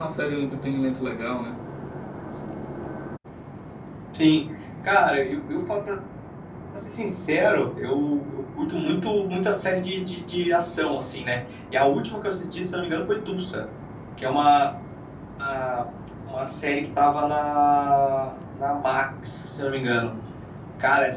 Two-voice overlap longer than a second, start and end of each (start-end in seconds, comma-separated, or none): none